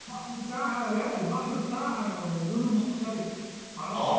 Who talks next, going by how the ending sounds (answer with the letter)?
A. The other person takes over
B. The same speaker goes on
A